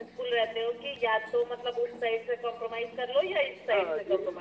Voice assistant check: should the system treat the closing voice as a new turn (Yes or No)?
Yes